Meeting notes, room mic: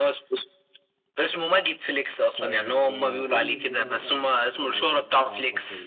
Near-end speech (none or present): present